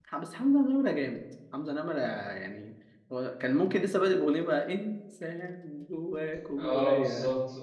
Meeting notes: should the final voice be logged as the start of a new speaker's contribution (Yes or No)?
Yes